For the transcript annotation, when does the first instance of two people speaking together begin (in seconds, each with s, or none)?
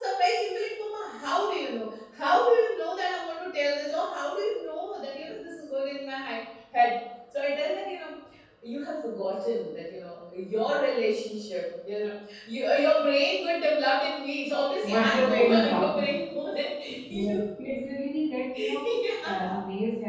14.8 s